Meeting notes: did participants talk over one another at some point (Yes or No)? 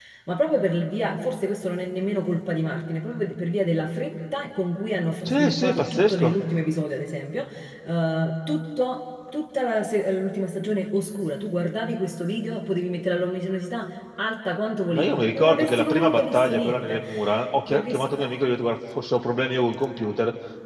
Yes